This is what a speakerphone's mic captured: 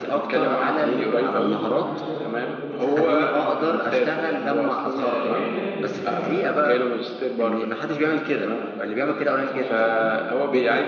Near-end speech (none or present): present